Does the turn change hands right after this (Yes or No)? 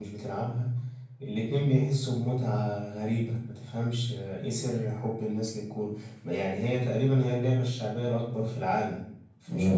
No